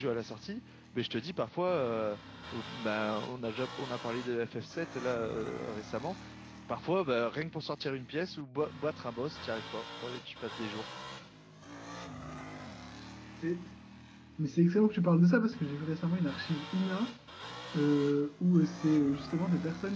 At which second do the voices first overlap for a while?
none

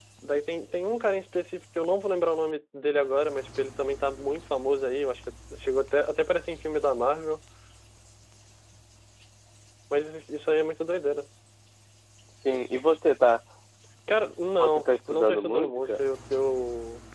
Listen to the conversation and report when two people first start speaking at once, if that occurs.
14.6 s

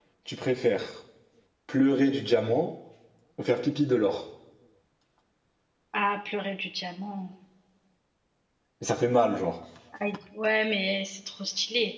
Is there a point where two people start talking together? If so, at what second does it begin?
none

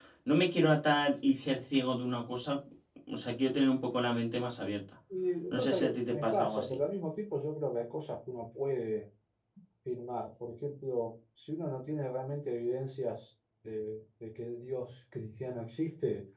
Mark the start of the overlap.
5.5 s

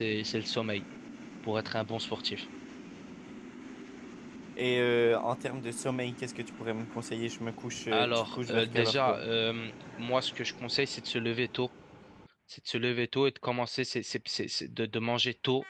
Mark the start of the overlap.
7.9 s

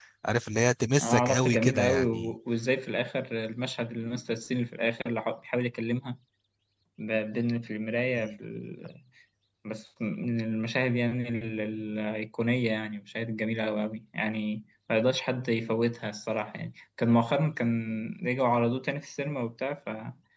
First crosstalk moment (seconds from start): 1.0 s

